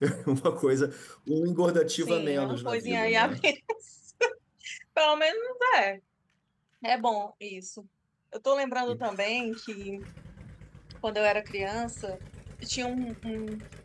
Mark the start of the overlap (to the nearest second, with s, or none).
2 s